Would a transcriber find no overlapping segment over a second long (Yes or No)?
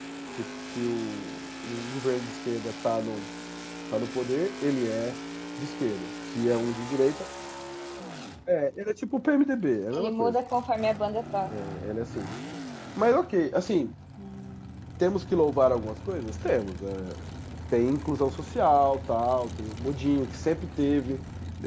Yes